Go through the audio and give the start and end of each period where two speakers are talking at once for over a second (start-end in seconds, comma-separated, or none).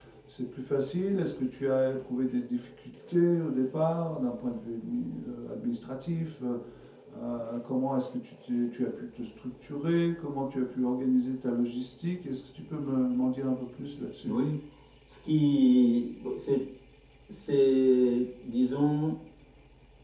none